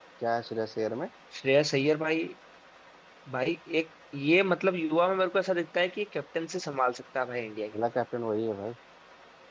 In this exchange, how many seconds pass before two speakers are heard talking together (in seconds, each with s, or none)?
none